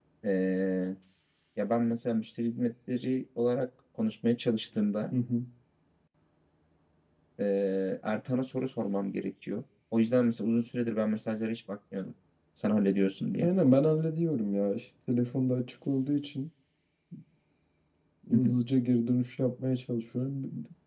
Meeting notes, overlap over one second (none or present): none